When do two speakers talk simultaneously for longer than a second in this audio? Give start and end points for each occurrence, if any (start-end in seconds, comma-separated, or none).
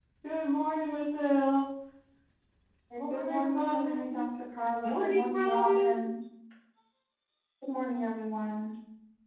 3.0-4.2, 4.8-6.1